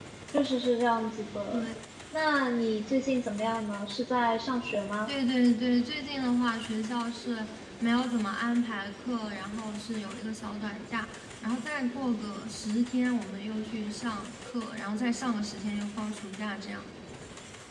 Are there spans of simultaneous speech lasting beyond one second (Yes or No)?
No